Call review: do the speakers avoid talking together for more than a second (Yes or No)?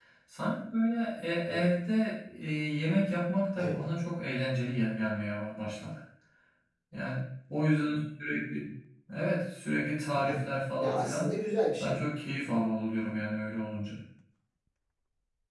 Yes